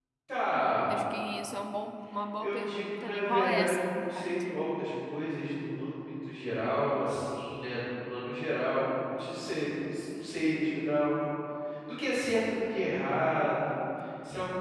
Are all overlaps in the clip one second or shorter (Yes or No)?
No